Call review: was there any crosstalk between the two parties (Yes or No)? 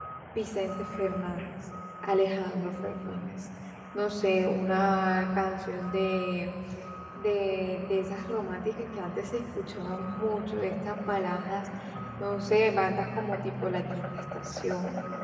No